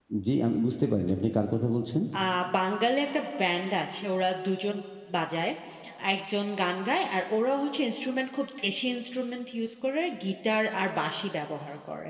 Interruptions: none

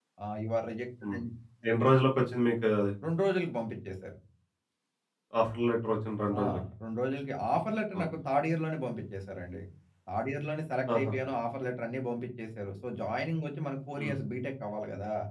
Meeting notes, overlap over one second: none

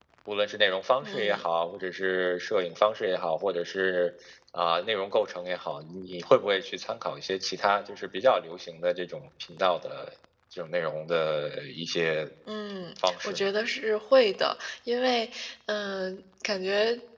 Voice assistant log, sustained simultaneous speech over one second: none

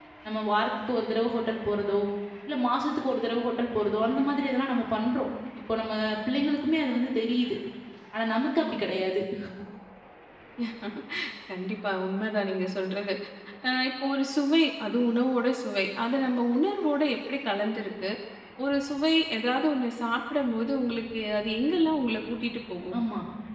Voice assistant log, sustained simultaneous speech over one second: none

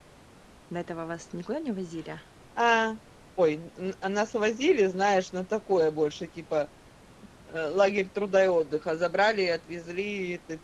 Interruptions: none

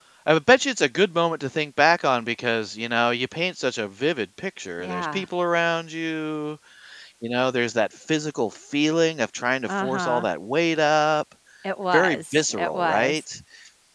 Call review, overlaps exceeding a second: present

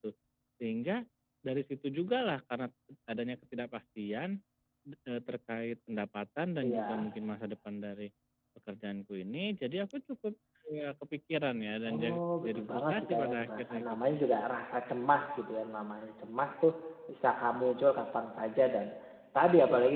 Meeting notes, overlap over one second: present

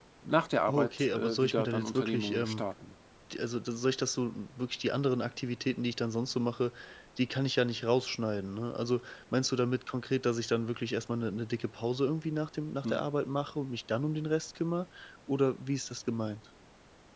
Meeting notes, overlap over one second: present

